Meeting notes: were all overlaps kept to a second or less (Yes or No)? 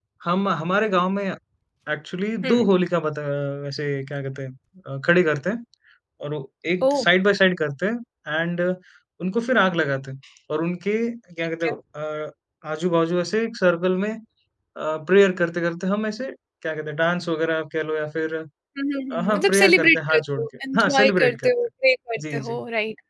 No